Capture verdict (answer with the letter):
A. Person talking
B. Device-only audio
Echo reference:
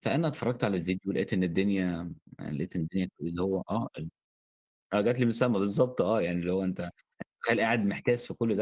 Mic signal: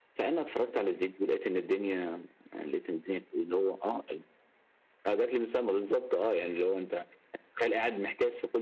B